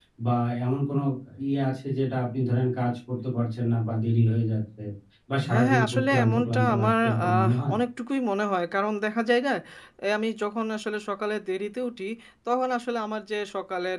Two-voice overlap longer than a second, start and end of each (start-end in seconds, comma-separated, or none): 5.5-7.8